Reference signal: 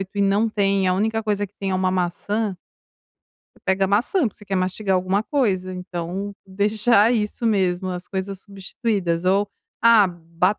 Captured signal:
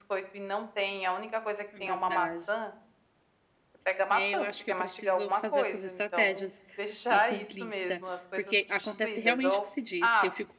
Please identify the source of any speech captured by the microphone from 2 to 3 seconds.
both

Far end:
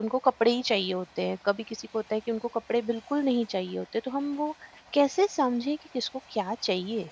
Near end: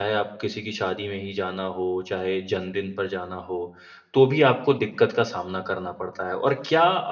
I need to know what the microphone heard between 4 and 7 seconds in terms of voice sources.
user only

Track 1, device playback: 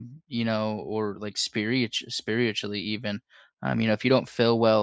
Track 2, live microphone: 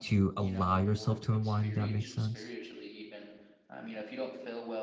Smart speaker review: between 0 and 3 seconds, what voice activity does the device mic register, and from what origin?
both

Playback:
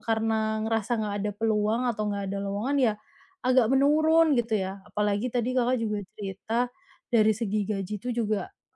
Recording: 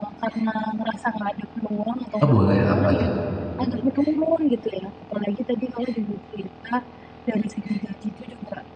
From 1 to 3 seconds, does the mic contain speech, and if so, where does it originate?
both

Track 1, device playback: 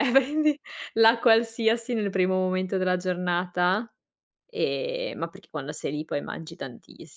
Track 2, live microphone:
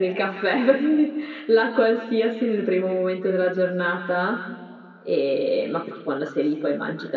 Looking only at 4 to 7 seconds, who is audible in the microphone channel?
echo only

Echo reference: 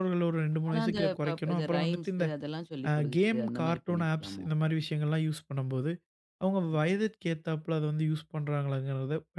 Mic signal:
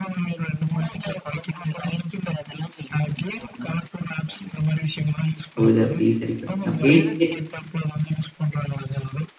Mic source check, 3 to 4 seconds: echo only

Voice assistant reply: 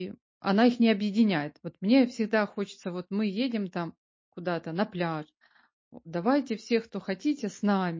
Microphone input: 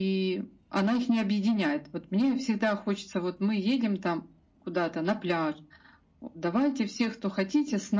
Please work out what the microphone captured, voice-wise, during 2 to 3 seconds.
echo only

